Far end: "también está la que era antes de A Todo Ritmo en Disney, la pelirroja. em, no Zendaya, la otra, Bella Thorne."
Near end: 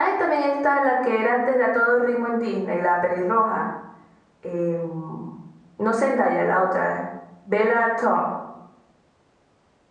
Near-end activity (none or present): none